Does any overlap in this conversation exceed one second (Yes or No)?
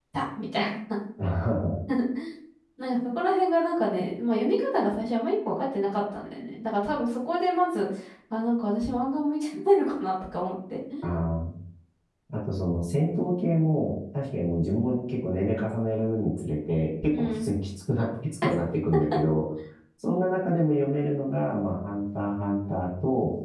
No